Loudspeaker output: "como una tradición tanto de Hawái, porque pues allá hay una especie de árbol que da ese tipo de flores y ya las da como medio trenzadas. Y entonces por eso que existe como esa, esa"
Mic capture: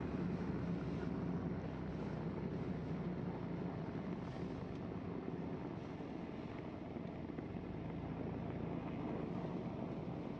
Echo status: none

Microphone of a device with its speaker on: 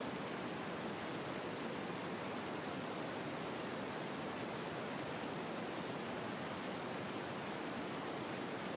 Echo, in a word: none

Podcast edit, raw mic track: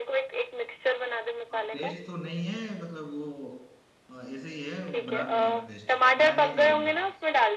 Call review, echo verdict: present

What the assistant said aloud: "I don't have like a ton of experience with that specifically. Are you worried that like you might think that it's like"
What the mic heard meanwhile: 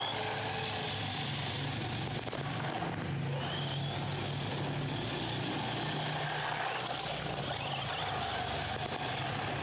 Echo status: none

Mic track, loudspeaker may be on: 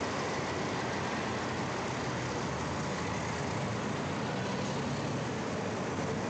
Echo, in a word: none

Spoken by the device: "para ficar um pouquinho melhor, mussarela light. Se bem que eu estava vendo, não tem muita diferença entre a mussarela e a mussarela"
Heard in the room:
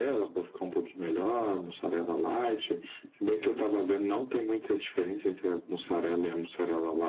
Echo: present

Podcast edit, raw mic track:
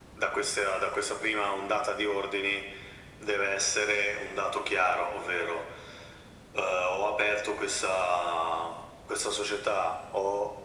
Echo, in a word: present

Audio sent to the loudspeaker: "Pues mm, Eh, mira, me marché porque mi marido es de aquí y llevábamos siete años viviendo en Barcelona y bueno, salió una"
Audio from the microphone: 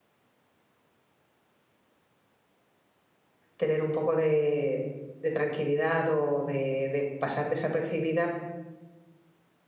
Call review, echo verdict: none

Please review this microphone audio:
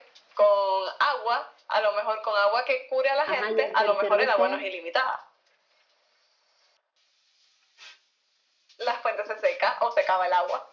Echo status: present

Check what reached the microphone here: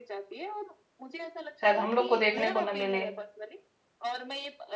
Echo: present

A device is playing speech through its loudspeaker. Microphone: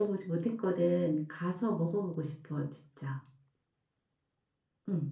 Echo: none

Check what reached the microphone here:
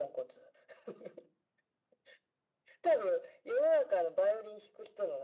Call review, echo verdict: present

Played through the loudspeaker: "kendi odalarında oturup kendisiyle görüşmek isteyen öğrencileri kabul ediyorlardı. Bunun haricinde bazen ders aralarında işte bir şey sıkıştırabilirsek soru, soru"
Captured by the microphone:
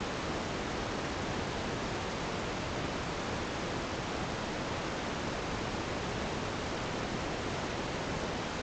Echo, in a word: none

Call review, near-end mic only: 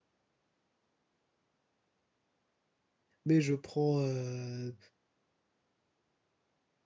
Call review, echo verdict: none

